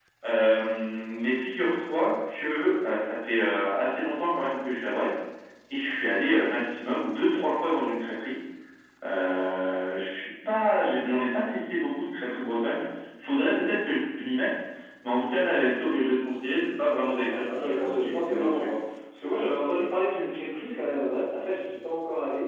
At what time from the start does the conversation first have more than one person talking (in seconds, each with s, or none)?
16.8 s